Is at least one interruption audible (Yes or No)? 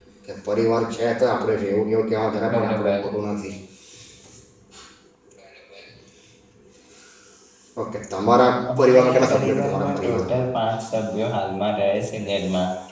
Yes